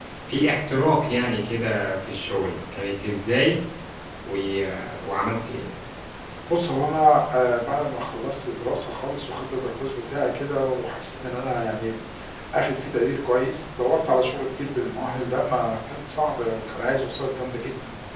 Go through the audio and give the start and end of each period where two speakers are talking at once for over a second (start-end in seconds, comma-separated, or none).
none